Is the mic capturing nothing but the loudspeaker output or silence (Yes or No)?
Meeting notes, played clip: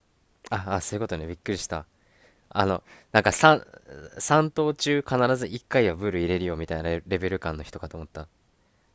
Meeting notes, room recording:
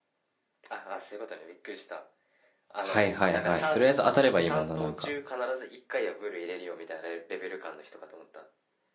No